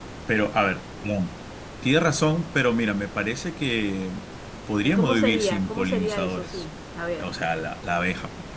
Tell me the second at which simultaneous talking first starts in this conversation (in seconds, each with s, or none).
4.8 s